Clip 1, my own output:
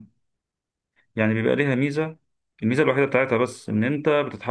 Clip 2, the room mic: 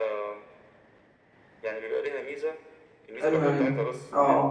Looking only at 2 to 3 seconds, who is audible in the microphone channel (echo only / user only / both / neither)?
echo only